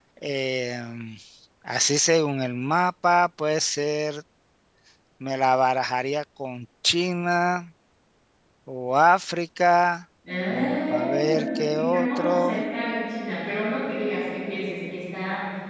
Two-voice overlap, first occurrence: 11 s

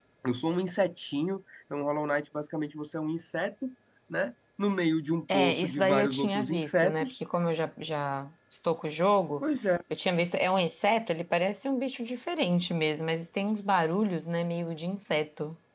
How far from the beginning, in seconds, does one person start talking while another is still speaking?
5 s

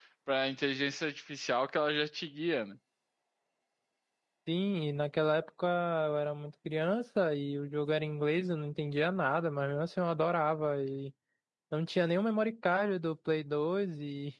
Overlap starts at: none

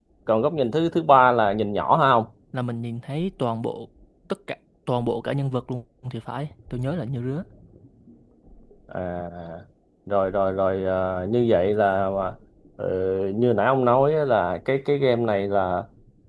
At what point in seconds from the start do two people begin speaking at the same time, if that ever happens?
none

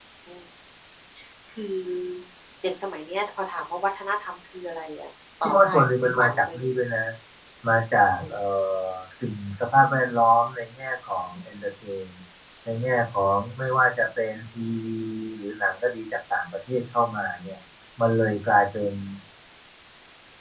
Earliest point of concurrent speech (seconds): 5 s

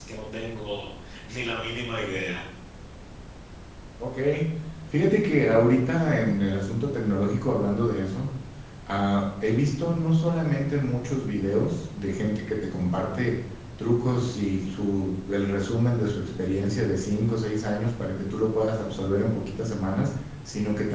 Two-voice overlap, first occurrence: none

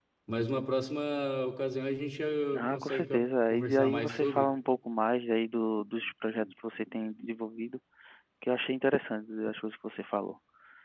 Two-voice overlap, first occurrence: 3 s

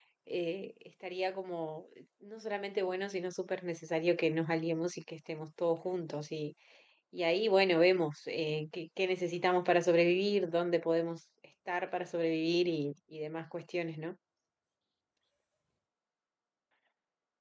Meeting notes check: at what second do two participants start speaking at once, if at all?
none

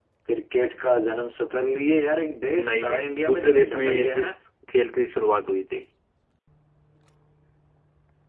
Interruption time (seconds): 3 s

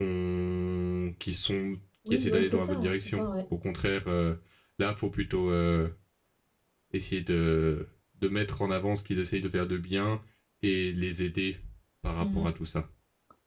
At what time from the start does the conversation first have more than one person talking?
2 s

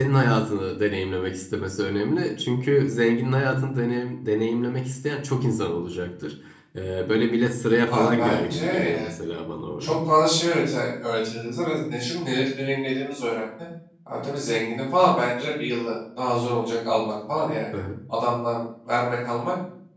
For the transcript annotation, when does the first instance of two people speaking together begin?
8 s

